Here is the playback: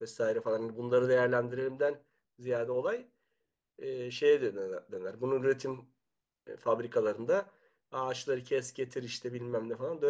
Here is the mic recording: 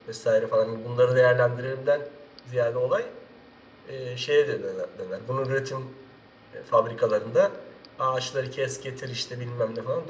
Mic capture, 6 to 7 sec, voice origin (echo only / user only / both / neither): echo only